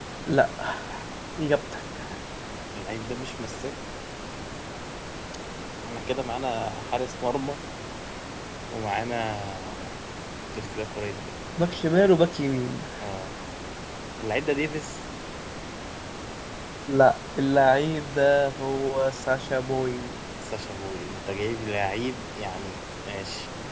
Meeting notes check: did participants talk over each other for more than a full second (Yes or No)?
No